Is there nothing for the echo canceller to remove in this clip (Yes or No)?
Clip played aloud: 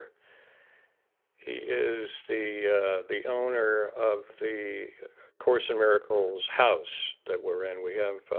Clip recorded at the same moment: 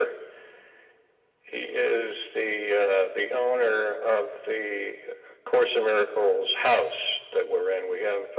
No